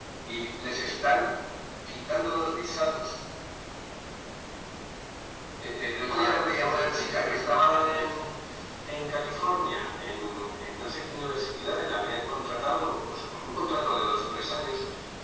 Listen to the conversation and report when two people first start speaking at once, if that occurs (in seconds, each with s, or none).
6.0 s